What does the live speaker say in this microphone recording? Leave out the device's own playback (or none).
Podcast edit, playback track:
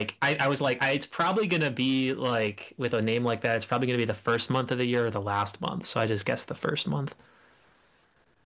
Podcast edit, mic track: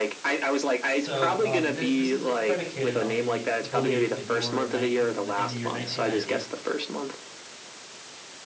So um, this this is predicated on the belief that you are in, ni in the in the year 1990.